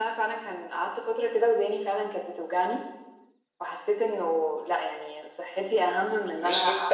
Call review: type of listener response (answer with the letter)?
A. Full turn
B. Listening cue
A